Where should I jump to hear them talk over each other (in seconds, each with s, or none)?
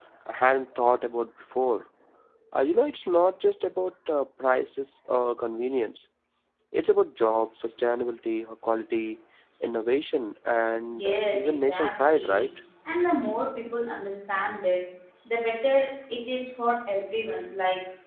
10.9 s